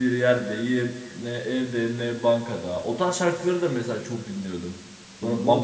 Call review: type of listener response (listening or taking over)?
taking over